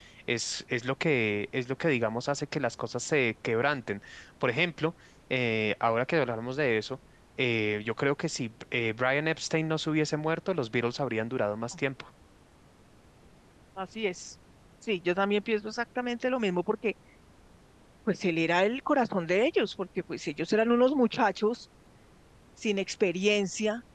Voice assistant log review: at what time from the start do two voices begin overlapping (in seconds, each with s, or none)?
none